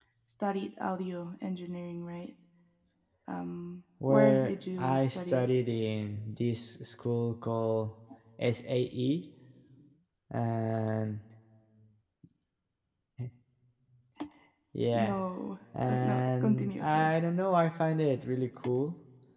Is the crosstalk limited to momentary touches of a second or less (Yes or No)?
No